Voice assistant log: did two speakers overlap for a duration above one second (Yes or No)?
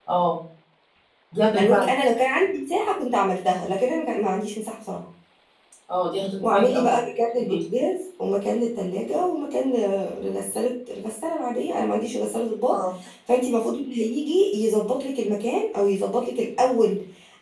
No